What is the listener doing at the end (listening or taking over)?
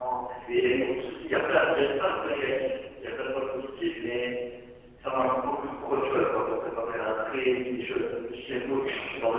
taking over